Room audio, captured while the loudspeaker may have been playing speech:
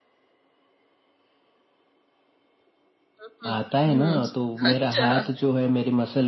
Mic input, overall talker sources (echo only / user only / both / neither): both